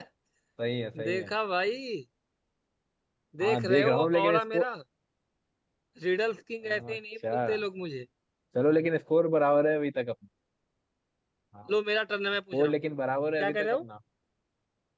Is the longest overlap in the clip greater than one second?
Yes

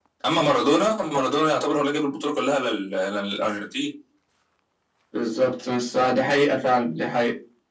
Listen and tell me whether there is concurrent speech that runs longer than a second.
No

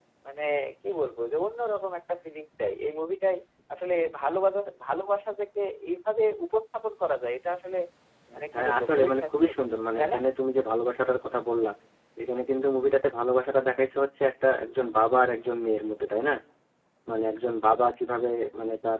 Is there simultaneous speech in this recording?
Yes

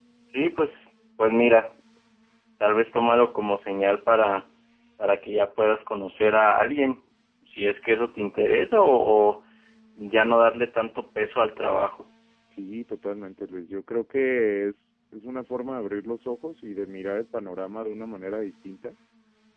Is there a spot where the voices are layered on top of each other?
No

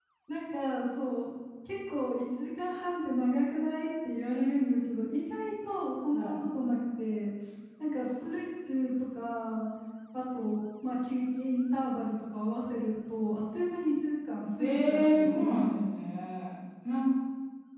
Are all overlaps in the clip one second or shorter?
No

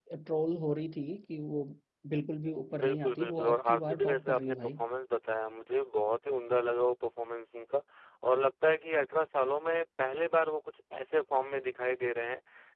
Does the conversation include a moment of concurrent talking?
Yes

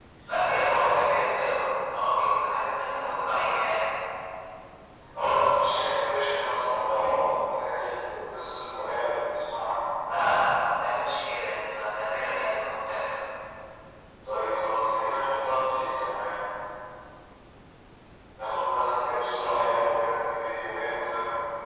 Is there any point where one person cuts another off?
Yes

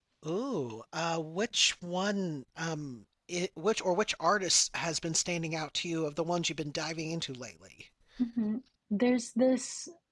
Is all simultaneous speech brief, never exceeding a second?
Yes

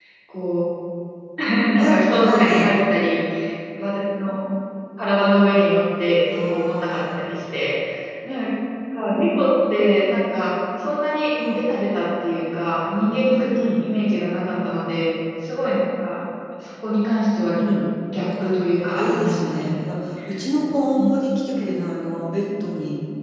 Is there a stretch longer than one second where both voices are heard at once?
Yes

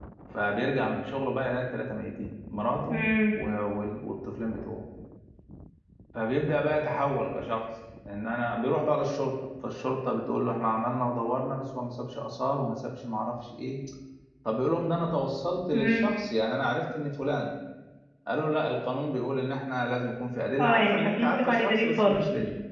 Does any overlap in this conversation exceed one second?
Yes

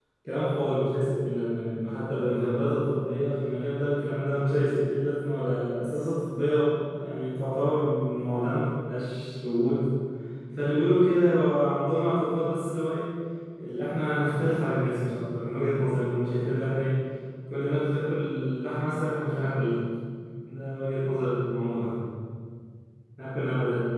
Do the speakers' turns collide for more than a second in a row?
No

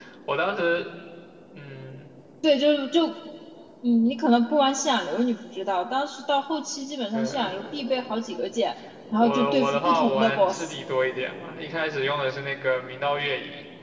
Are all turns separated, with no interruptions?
No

